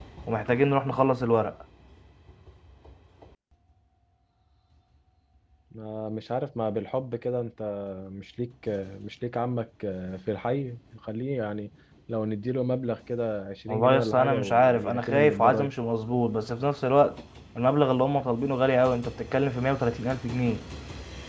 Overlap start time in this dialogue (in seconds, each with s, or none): 13.7 s